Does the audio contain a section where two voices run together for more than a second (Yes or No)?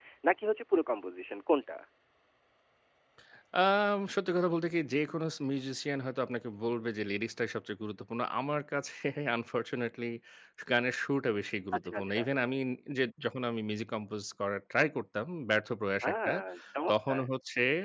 No